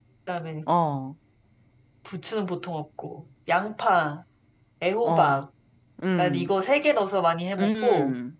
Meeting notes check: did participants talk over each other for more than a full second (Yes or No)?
No